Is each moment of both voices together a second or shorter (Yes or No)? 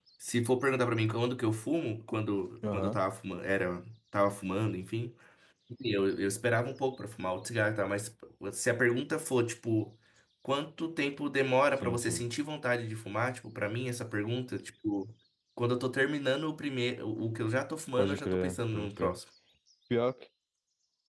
No